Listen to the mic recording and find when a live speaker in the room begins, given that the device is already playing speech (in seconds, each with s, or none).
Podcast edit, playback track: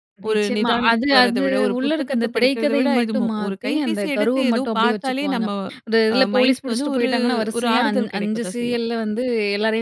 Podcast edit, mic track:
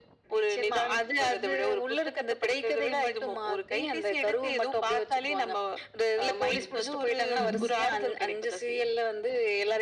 6.5 s